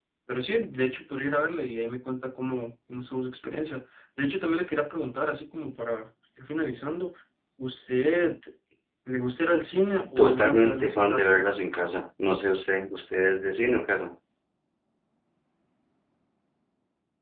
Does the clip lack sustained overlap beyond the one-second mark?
No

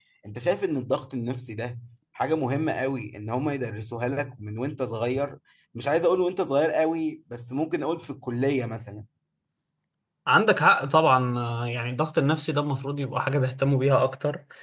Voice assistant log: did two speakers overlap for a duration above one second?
No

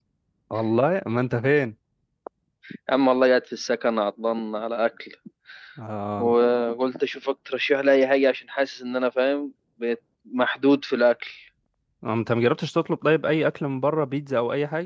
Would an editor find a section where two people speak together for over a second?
No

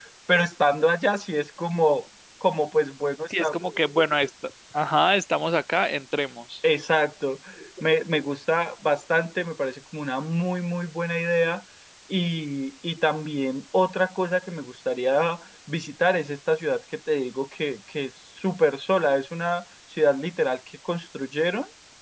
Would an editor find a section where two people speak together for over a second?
No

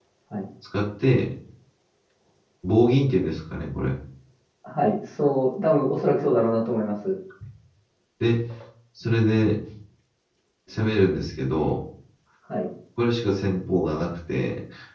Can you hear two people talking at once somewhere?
No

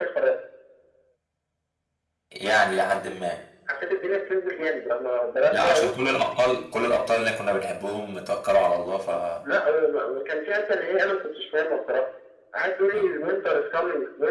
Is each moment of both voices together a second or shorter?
Yes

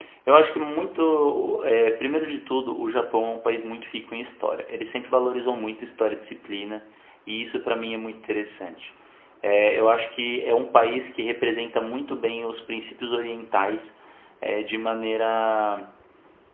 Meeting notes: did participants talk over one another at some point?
No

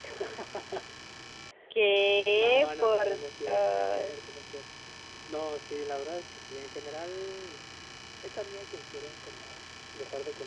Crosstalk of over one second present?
Yes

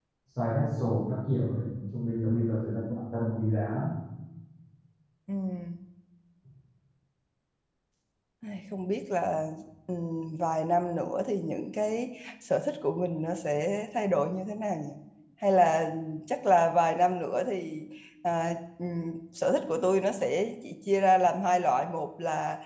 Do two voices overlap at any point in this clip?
No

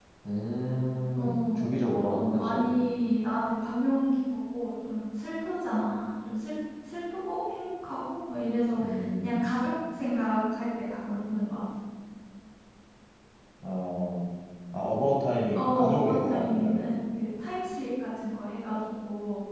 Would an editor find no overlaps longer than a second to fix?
No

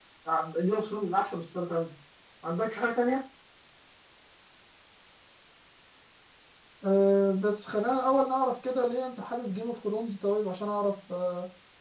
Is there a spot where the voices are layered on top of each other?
No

